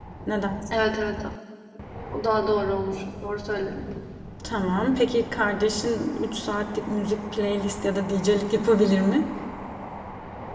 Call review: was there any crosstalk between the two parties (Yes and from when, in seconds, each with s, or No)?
No